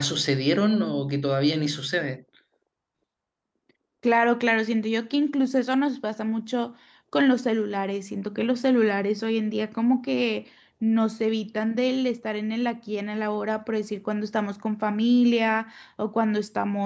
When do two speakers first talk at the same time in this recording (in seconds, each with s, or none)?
none